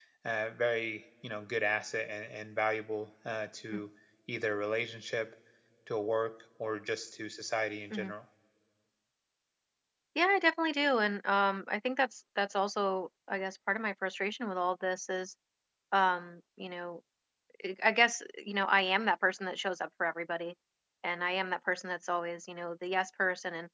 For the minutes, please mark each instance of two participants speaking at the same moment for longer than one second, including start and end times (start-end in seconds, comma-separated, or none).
none